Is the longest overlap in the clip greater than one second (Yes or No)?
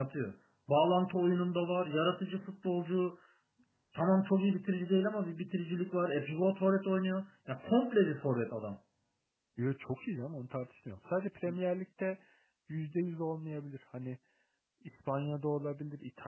No